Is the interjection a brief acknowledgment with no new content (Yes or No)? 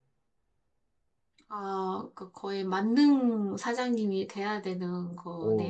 No